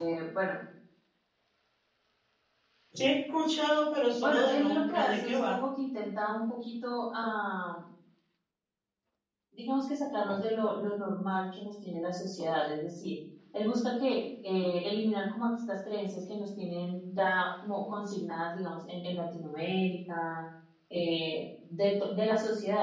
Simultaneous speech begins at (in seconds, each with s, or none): 4.2 s